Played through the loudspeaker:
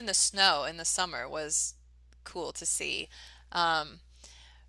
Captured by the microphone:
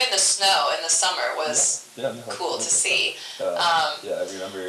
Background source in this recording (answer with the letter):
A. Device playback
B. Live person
B